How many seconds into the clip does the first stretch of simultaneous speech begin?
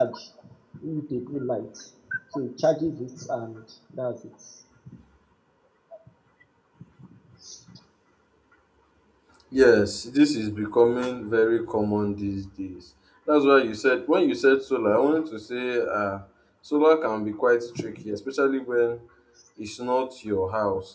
none

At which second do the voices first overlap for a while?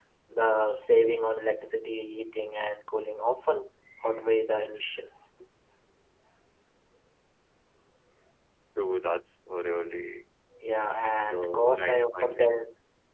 11.3 s

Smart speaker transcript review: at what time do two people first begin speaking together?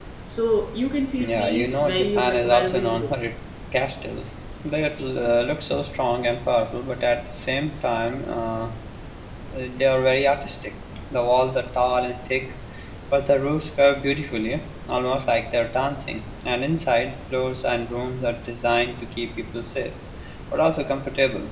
1.2 s

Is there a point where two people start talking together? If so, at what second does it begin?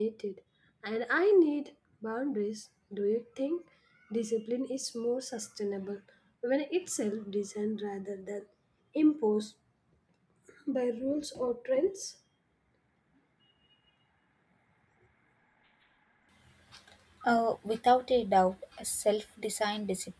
none

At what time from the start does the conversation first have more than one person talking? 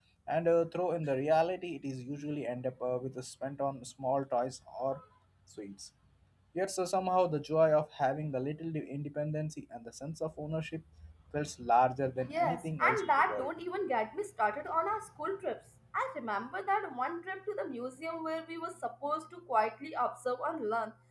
12.3 s

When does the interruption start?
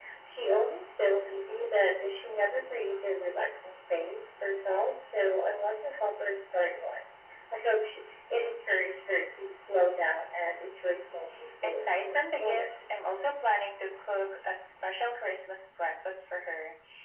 11.6 s

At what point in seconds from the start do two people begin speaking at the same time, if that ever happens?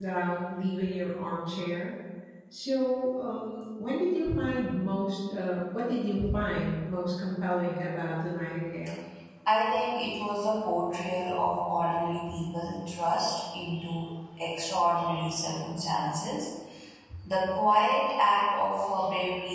none

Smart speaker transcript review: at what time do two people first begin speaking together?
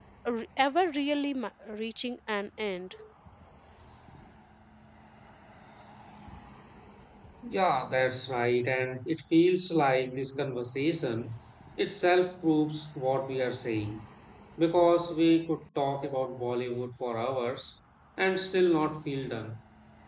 none

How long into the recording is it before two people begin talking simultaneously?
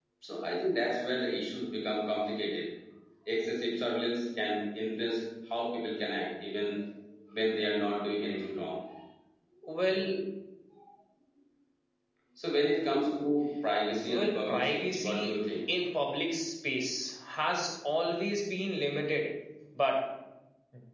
14.1 s

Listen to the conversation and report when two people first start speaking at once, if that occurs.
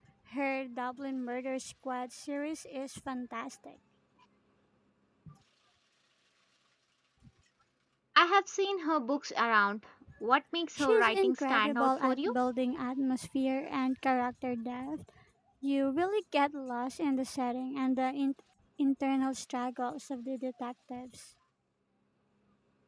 10.8 s

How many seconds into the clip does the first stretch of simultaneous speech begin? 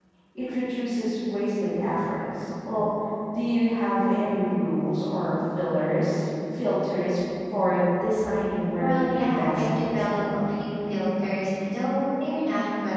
8.7 s

